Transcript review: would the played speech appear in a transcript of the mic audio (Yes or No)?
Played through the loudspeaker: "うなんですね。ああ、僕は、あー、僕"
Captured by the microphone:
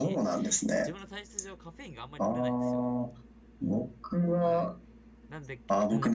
Yes